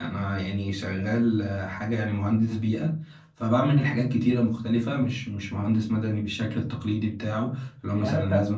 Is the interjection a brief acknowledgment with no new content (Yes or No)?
No